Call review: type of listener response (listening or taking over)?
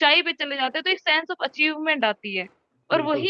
listening